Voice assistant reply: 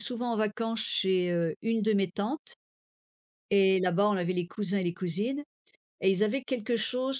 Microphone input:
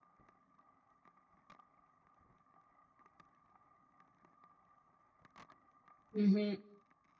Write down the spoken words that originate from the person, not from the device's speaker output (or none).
Mmh mh.